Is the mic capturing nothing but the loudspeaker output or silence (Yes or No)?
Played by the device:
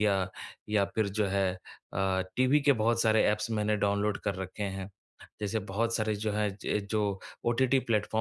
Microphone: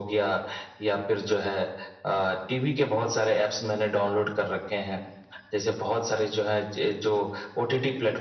Yes